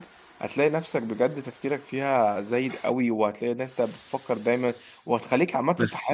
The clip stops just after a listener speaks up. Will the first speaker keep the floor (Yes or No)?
Yes